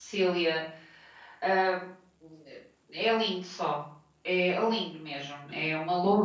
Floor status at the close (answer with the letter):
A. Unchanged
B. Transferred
B